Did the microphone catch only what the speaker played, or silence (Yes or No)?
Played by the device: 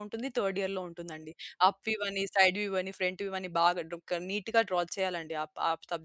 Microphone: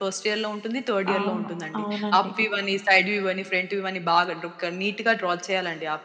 No